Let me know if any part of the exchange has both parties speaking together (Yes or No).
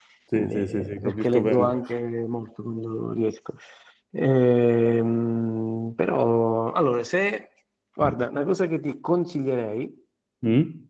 Yes